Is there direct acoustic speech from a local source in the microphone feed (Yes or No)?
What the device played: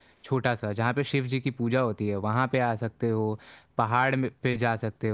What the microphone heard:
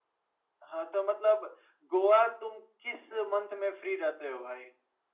Yes